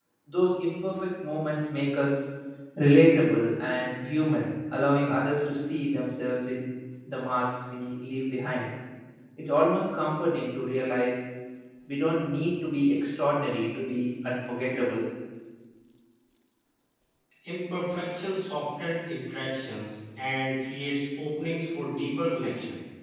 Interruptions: none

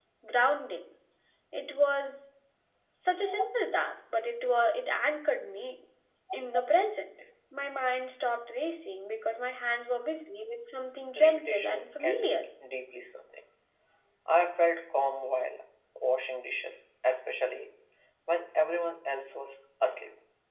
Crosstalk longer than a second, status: present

